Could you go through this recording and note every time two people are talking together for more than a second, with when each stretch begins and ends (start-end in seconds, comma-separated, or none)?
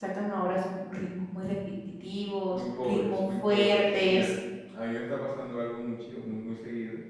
2.5-4.3